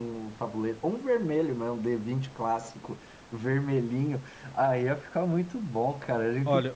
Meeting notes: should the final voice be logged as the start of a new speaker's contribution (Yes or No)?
Yes